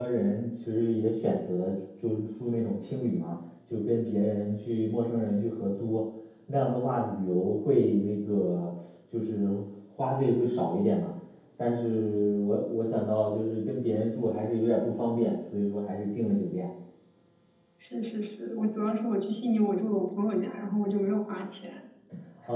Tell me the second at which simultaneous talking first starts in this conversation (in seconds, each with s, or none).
none